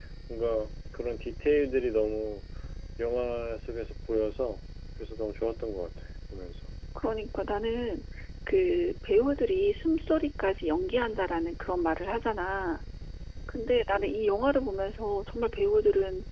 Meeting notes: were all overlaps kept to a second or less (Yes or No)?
Yes